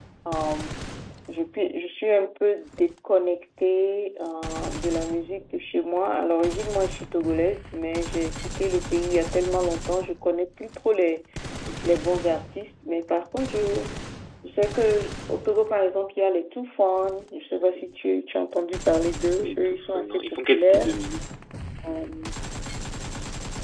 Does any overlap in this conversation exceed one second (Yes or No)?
Yes